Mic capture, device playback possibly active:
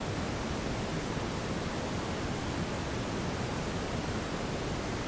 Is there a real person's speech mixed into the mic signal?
No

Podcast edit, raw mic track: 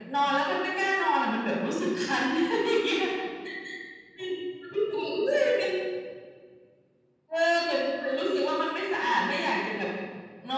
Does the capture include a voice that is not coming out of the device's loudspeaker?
No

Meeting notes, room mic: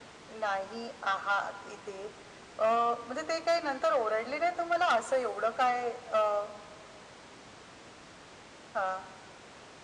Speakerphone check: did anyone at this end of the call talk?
No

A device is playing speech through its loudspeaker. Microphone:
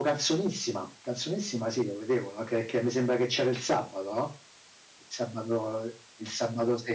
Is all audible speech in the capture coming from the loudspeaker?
Yes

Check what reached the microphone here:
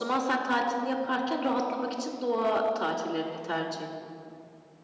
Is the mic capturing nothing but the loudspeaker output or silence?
Yes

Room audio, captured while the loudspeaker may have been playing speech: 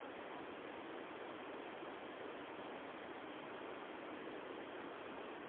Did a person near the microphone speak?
No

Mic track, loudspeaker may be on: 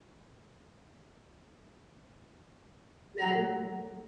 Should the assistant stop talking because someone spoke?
Yes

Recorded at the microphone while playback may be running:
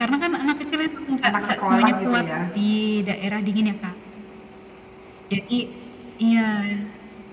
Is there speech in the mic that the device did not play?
Yes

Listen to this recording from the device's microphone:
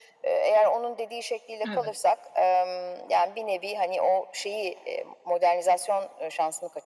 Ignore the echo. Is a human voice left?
Yes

